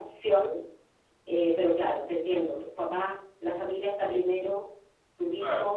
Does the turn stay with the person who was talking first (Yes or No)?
Yes